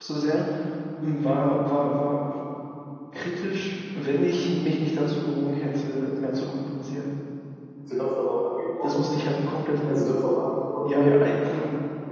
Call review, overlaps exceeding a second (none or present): none